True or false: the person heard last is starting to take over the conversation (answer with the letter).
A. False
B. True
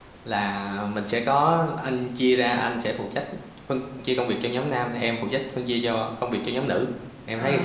B